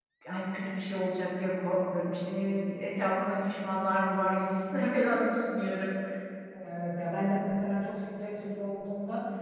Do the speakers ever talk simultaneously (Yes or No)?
No